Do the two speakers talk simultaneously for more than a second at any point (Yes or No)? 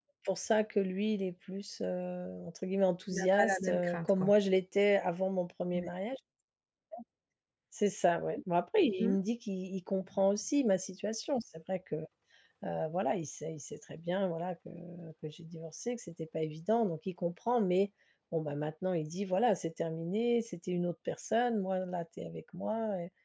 Yes